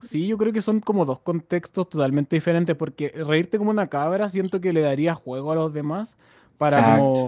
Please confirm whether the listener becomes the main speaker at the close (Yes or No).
No